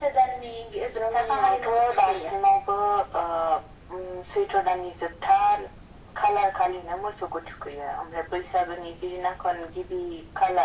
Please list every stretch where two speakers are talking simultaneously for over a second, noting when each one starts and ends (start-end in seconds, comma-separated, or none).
1.0-2.3